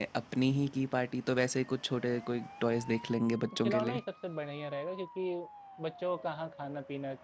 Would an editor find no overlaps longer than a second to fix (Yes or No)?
Yes